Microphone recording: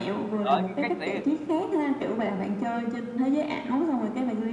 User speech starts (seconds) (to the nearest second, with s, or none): 0 s